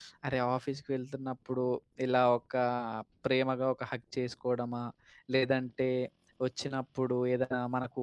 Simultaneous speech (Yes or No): No